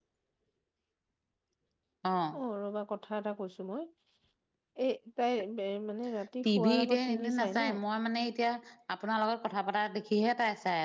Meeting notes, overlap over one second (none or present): present